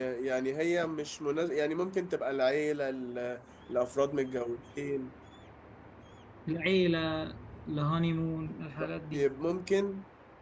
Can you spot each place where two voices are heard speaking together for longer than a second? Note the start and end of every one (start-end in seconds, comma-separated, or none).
none